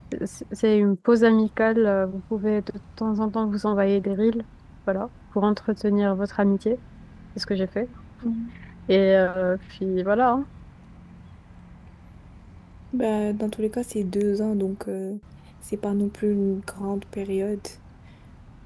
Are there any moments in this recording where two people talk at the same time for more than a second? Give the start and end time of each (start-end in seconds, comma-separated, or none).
none